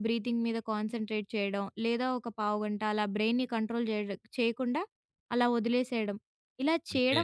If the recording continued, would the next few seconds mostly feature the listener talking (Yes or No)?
No